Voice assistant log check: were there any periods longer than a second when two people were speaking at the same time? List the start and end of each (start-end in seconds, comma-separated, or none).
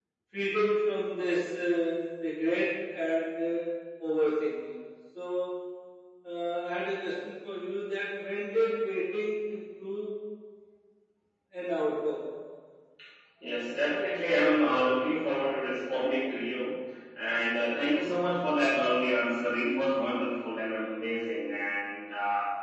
none